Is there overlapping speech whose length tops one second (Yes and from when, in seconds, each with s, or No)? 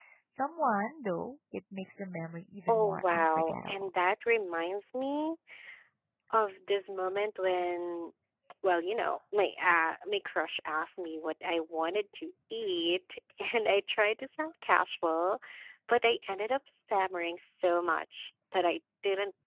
Yes, from 2.7 s